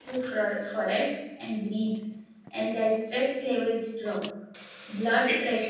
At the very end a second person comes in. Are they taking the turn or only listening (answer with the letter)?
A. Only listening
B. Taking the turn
A